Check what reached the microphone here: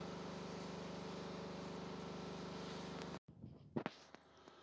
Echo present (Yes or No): No